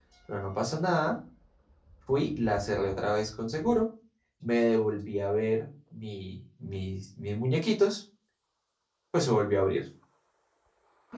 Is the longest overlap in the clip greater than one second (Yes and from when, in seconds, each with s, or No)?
No